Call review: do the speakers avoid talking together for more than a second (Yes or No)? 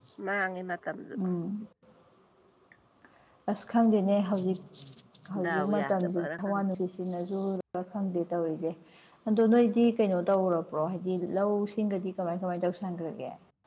No